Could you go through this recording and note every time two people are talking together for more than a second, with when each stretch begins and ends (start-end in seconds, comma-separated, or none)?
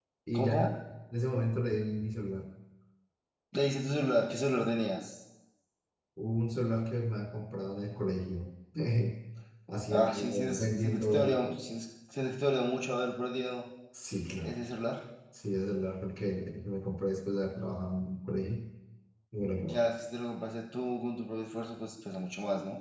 9.9-11.4